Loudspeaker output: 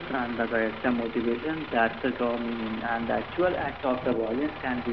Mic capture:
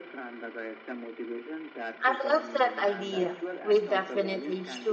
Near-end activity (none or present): present